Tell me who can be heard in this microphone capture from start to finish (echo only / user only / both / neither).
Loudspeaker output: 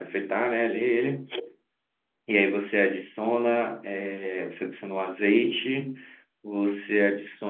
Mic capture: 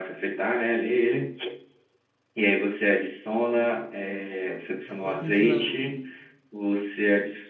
both